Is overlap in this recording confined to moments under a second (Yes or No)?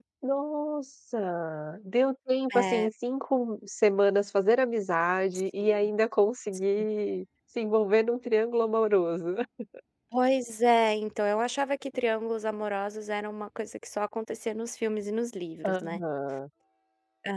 Yes